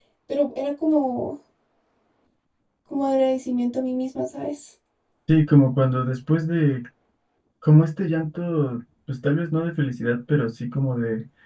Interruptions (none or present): none